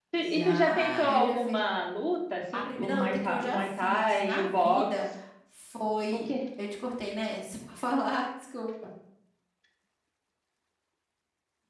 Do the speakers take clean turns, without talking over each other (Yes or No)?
No